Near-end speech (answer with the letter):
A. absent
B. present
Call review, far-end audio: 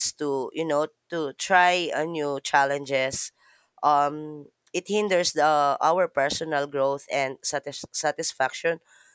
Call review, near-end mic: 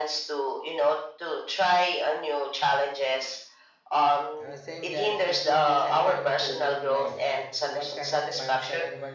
B